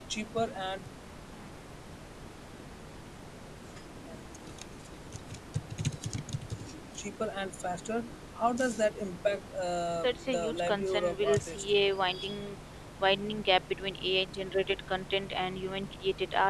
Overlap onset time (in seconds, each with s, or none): 10.0 s